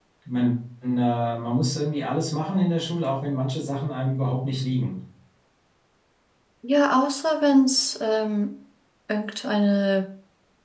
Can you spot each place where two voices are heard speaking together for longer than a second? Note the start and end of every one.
none

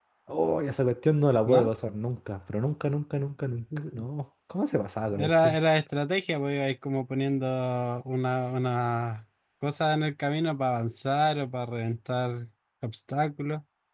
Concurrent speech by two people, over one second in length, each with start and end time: none

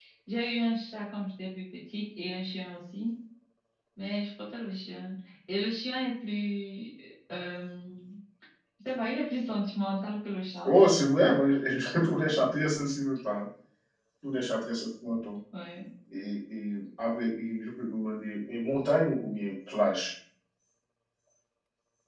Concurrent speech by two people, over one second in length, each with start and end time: none

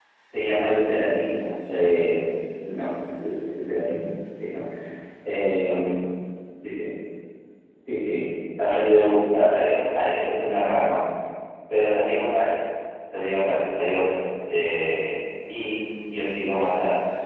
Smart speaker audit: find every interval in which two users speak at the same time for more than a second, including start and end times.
8.6-10.6

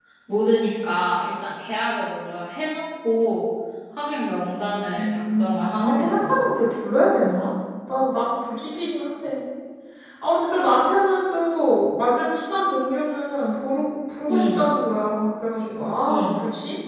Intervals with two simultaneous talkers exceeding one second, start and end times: 5.0-6.5

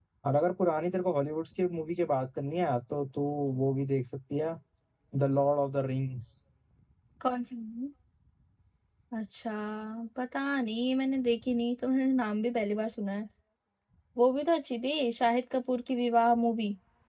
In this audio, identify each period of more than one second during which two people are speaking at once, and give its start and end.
none

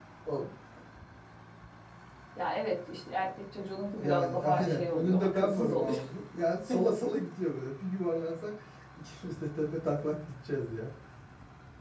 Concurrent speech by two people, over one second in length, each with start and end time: 3.9-6.0

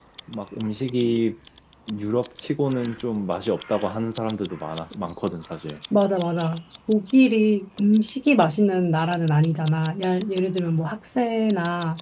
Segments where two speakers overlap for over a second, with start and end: none

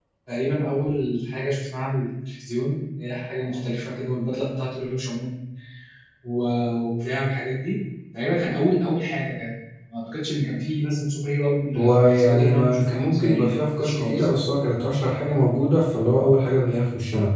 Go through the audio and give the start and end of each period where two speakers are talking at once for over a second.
11.8-14.2

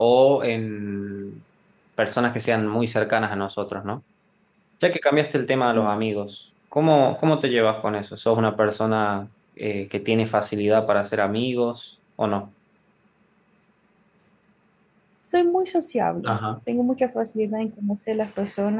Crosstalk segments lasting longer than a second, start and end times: none

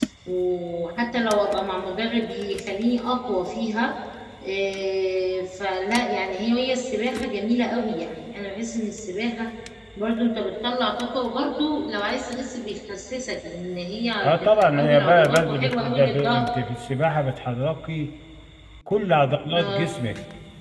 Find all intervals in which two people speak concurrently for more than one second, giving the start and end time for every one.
14.2-16.5

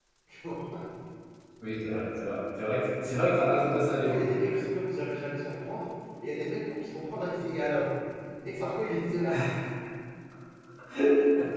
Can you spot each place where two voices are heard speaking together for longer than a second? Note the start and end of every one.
none

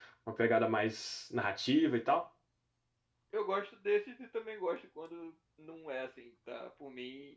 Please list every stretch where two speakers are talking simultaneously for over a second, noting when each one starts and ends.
none

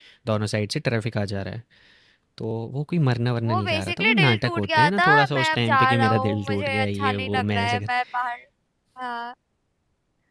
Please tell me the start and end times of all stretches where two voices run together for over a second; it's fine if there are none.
3.4-7.8

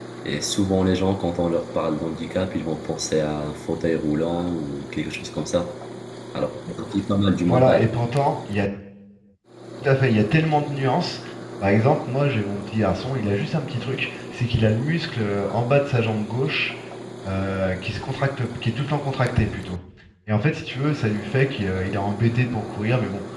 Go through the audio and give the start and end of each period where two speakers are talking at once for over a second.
none

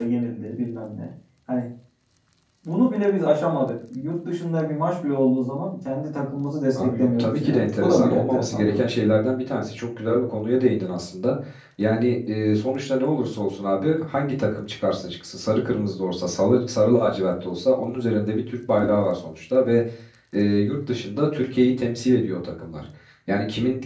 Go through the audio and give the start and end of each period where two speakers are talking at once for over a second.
6.8-8.8

